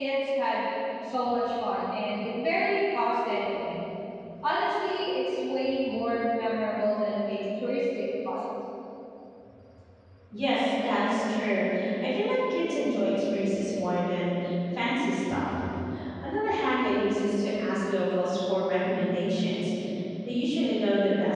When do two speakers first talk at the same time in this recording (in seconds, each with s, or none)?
none